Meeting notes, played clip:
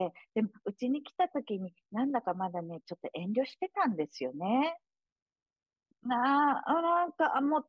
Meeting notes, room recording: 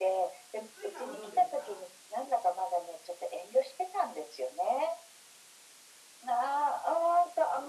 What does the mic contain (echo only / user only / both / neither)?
both